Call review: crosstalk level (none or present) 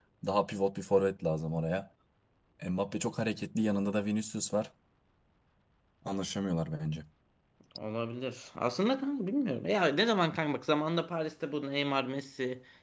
none